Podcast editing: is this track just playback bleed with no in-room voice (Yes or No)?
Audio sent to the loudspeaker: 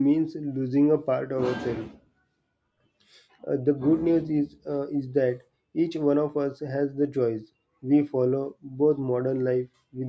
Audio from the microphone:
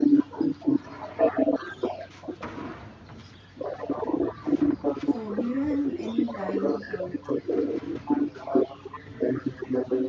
No